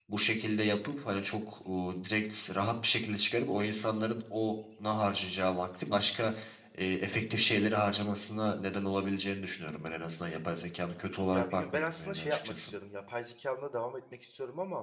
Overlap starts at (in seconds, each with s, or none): 11.3 s